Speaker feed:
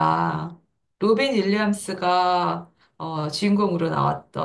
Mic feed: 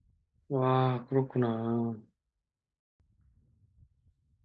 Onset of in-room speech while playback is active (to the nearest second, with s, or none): 0 s